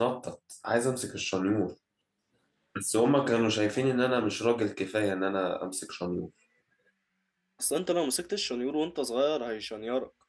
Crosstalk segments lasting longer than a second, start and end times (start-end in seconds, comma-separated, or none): none